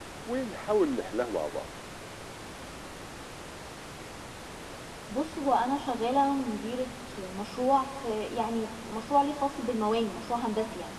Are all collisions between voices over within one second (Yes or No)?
Yes